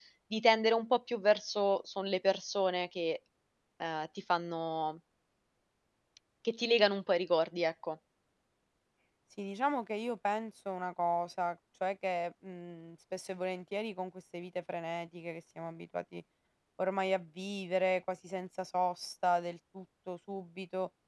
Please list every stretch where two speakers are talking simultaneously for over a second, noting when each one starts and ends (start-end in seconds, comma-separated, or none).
none